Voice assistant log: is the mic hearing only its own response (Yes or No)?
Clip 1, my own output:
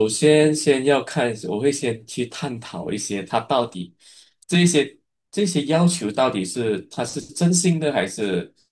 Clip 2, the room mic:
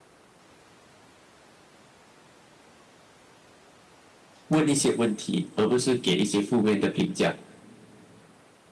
No